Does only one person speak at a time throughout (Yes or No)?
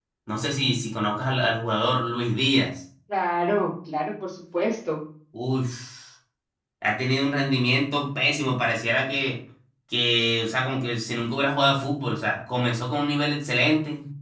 Yes